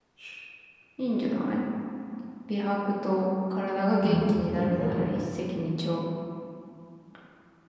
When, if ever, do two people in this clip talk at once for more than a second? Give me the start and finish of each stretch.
4.0-5.2

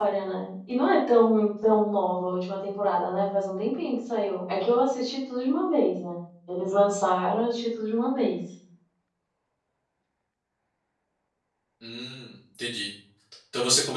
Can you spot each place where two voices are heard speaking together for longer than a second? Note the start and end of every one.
none

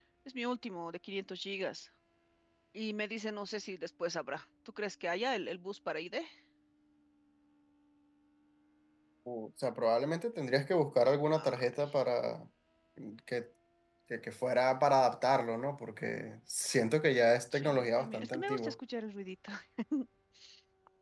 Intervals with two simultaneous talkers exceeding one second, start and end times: 17.5-18.8

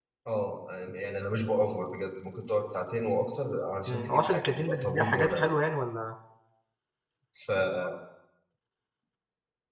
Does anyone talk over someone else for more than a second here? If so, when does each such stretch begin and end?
3.9-5.4

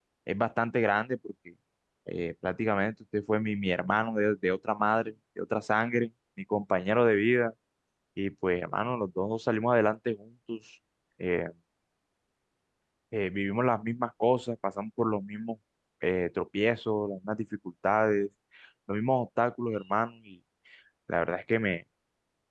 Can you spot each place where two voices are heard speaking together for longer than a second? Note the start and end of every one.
none

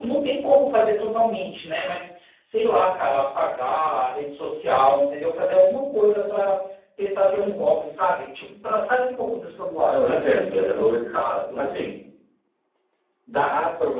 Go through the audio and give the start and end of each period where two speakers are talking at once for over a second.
9.9-11.1

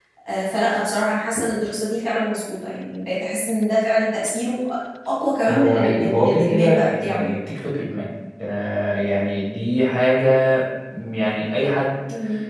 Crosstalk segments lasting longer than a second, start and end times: 5.5-7.4

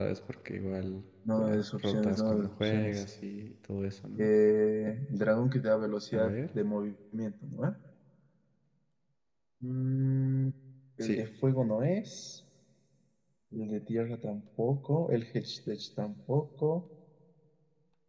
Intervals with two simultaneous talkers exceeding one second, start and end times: 1.4-3.0

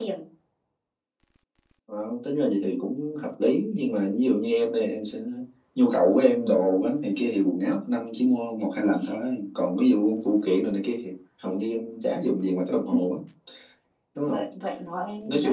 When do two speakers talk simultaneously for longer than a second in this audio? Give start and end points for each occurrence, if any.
none

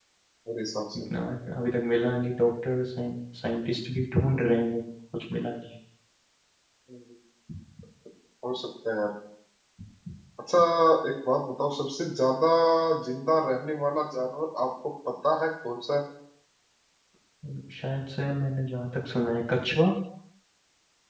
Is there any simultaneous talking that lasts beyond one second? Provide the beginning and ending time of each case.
none

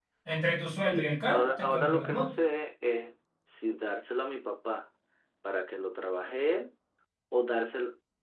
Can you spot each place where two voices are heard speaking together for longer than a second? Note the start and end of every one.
0.8-2.3

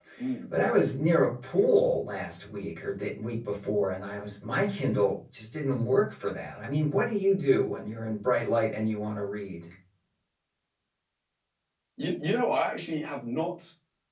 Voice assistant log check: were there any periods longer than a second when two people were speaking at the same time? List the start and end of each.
none

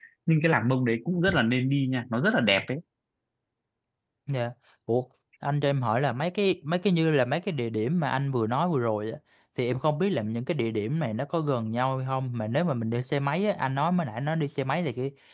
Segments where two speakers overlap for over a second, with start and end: none

